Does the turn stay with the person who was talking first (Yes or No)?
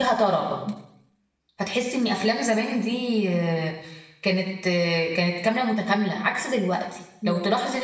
Yes